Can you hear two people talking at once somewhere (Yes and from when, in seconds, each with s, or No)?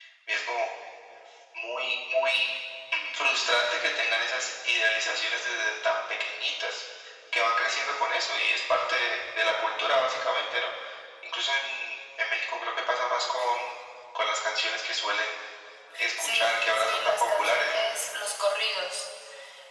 Yes, from 16.2 s